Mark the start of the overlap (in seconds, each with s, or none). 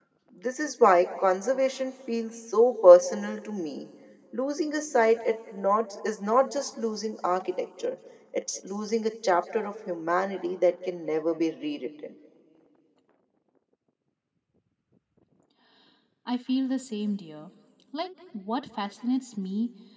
none